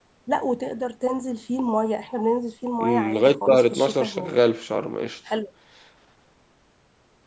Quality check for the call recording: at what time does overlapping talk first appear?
2.8 s

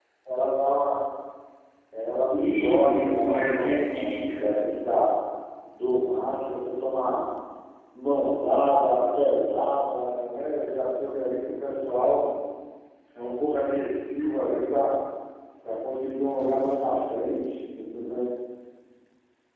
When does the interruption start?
2.4 s

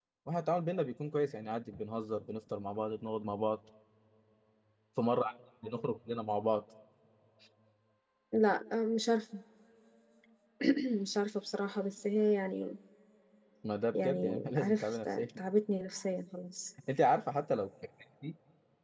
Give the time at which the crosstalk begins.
14.0 s

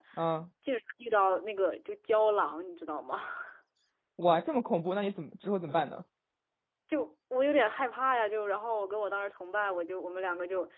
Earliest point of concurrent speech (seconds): none

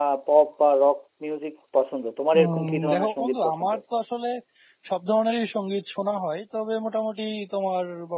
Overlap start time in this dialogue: 2.3 s

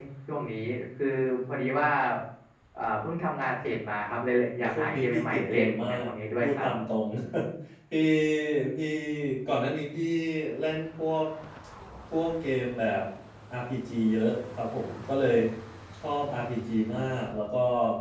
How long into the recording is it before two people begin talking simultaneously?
4.6 s

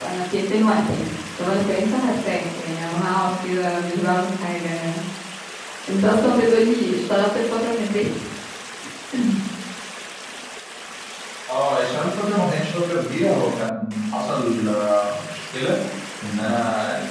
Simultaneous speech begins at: none

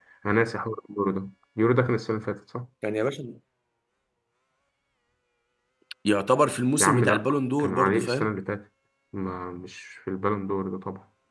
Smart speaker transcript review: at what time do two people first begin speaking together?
6.8 s

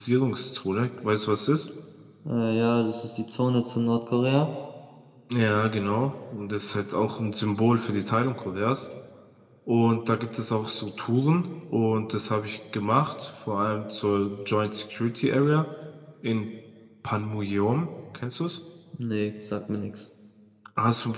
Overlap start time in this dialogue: none

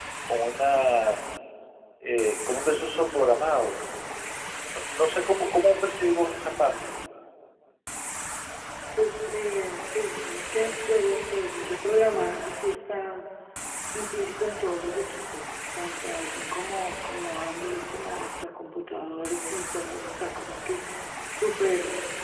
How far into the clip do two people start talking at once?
none

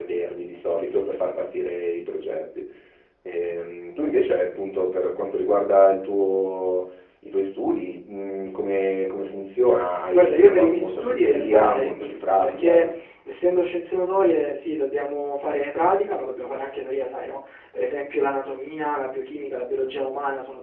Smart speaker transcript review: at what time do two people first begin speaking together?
9.9 s

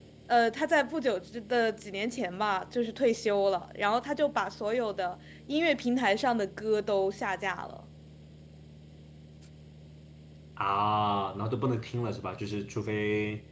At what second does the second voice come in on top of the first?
none

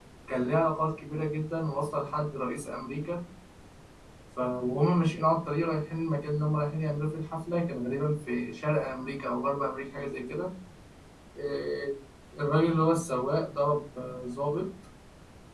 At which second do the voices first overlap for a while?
none

